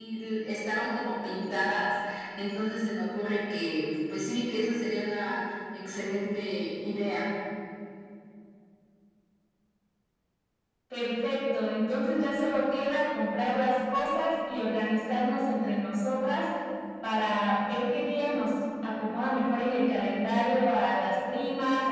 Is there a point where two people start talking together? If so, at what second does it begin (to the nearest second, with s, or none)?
none